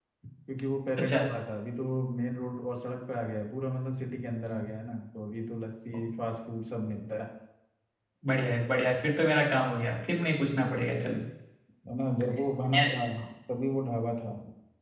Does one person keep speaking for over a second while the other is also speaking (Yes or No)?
No